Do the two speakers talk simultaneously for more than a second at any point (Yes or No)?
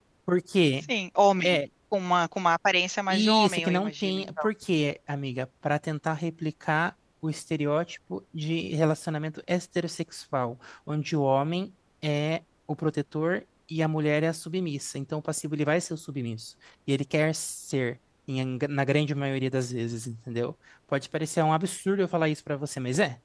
Yes